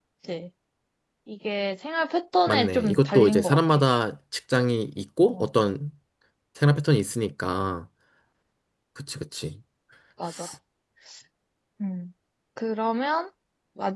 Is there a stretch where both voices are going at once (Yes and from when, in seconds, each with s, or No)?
Yes, from 2.5 s